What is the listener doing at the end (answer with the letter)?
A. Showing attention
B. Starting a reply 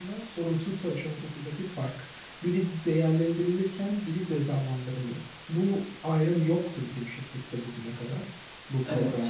B